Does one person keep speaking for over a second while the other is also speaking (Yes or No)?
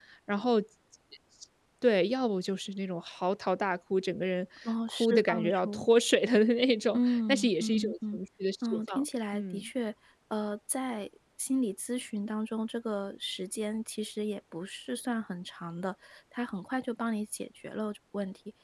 Yes